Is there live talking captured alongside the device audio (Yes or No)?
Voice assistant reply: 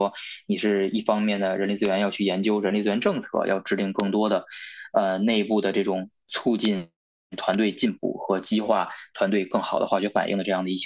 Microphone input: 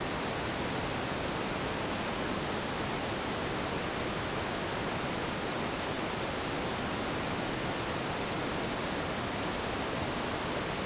No